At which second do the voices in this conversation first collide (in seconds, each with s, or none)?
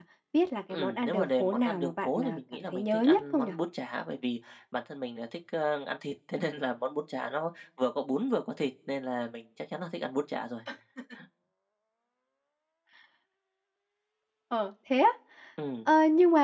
0.7 s